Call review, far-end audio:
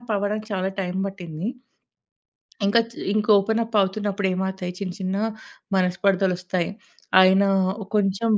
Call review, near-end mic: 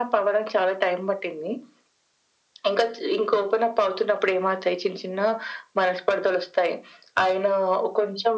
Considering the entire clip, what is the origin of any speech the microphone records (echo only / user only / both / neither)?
echo only